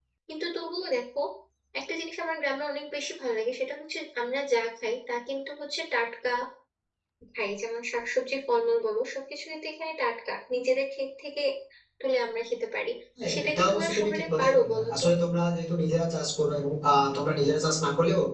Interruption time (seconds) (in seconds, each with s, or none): 13.3 s